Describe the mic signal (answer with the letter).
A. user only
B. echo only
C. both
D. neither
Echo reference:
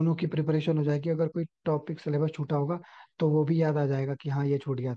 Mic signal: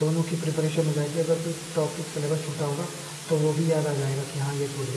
B